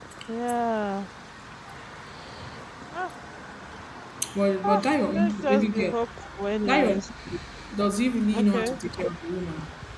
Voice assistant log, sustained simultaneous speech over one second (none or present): present